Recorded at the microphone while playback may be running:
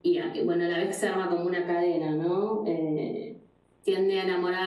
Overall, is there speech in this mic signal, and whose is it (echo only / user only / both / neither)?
echo only